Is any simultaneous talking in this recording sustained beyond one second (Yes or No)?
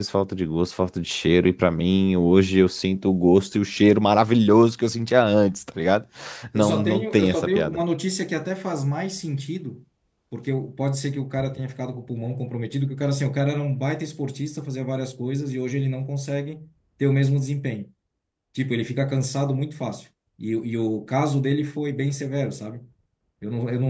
Yes